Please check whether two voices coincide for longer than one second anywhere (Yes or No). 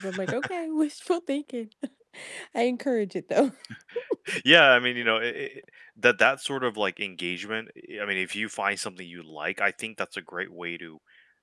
No